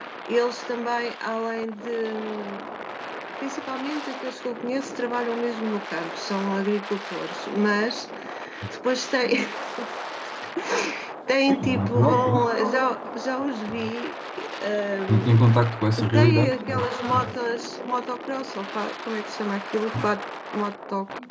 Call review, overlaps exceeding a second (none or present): present